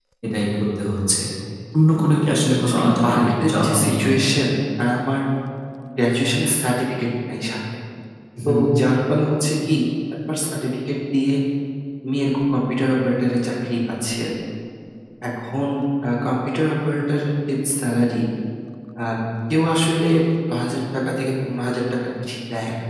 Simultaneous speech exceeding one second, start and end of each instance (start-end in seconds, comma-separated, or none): 2.6-4.0